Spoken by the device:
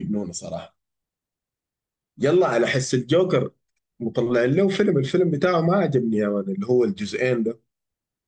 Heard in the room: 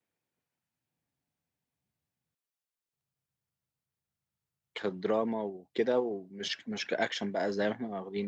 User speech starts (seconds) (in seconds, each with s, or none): 4.7 s